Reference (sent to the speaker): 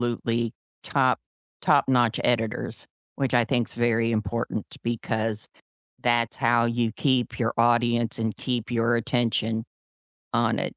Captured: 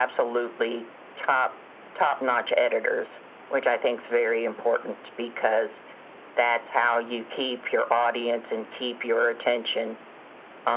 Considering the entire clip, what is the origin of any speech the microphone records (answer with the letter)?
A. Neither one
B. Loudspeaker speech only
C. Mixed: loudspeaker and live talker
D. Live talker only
B